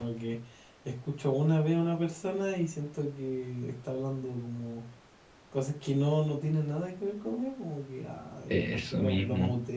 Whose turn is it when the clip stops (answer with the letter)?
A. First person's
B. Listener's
A